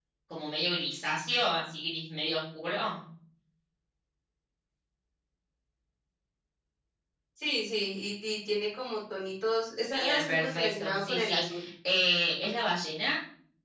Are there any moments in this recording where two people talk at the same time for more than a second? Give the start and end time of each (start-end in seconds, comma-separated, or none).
9.9-11.4